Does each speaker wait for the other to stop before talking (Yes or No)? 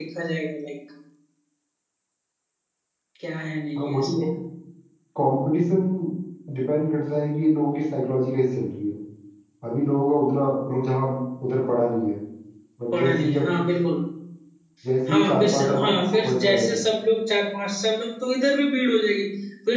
No